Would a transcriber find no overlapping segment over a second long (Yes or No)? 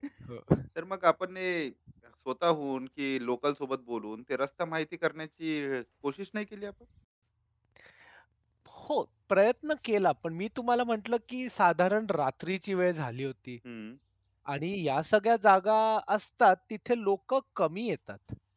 Yes